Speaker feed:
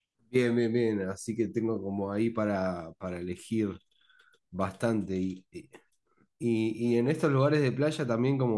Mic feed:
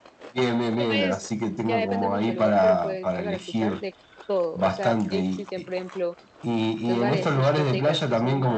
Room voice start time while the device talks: 0.8 s

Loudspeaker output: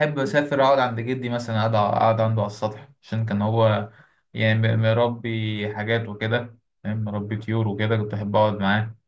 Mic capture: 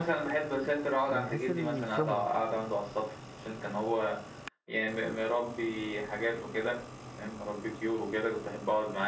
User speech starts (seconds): 1.0 s

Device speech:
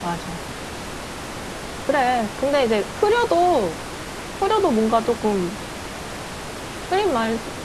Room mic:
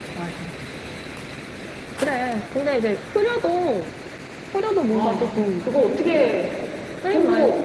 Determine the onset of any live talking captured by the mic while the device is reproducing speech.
4.9 s

